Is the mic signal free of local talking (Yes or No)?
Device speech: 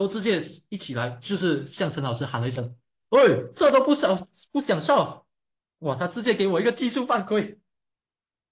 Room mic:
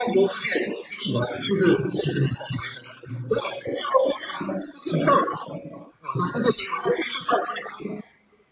Yes